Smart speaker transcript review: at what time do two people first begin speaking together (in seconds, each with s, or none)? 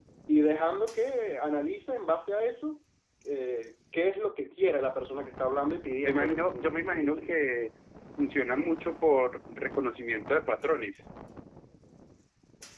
6.0 s